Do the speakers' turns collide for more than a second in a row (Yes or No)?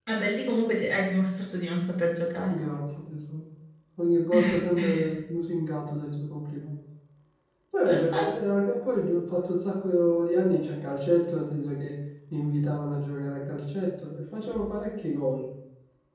No